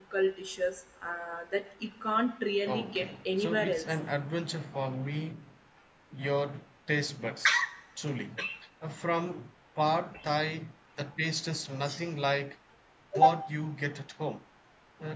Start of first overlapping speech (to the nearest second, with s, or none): 3 s